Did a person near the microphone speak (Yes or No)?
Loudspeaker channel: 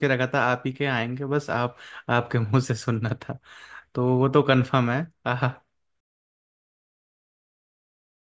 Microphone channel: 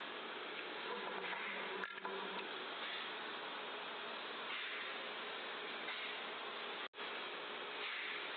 No